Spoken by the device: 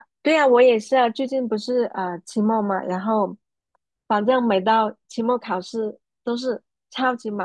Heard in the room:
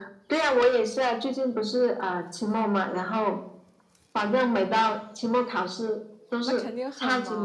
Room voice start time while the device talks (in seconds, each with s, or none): 6.4 s